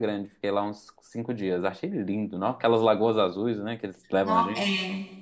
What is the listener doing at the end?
taking over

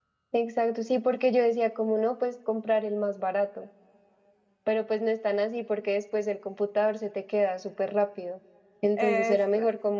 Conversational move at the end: listening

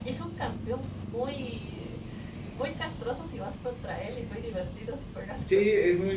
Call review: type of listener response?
taking over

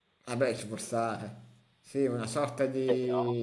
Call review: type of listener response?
listening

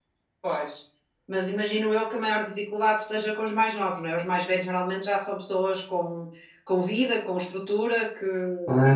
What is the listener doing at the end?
taking over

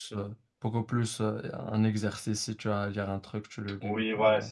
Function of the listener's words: taking over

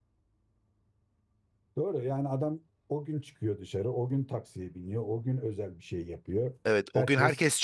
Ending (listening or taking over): taking over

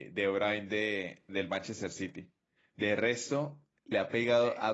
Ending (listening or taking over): listening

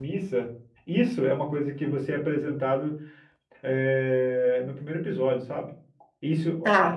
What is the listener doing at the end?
listening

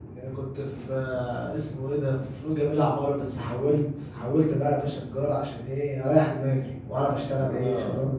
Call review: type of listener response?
taking over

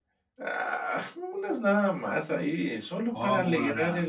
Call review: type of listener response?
taking over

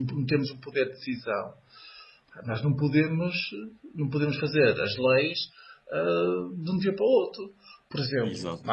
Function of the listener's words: listening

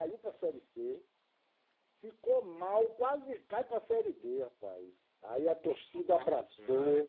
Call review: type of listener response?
listening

